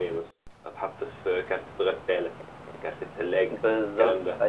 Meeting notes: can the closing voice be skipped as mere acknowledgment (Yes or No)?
No